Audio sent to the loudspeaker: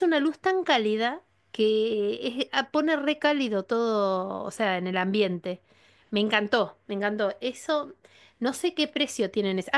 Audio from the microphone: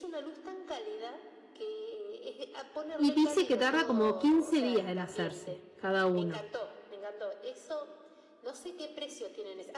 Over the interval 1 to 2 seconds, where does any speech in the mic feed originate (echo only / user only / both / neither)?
echo only